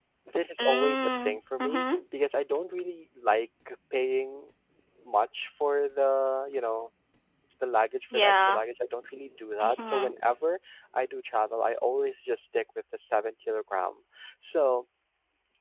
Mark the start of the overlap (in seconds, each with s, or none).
0.6 s